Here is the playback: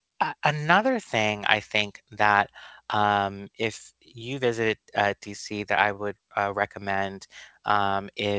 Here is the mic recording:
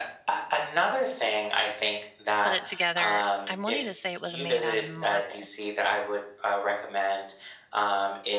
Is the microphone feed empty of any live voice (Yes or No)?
No